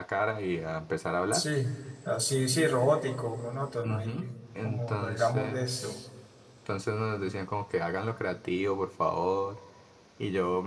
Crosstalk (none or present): present